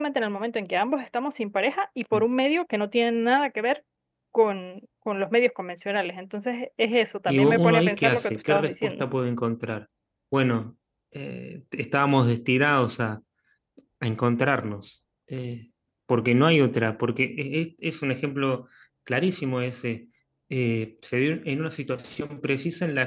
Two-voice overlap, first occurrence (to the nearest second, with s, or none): 7 s